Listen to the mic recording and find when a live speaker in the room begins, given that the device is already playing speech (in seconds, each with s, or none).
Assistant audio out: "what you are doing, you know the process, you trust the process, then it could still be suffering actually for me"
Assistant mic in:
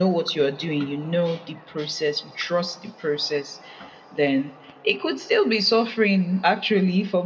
none